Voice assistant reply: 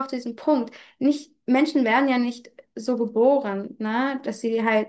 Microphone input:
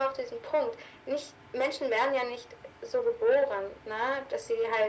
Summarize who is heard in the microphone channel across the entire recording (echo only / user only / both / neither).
echo only